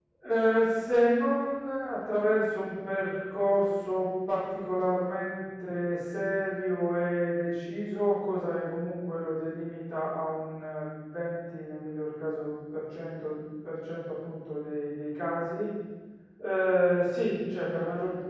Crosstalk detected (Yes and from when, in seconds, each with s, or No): No